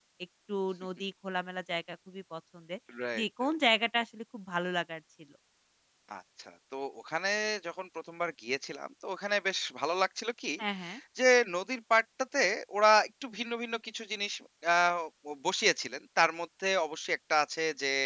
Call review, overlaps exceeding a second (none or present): none